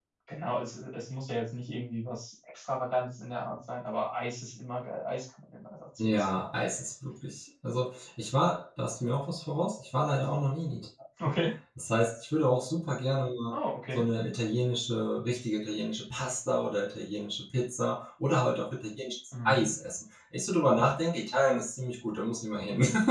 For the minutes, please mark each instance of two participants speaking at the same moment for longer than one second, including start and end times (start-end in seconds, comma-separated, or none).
none